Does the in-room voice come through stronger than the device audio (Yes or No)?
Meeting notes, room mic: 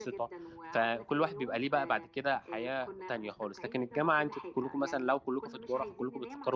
Yes